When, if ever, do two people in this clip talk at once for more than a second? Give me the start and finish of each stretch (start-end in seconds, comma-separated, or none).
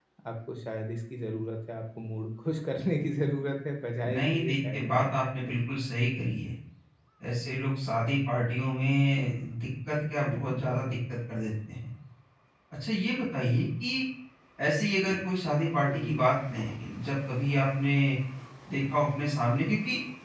4.0-5.6